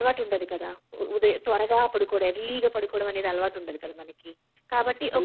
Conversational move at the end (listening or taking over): listening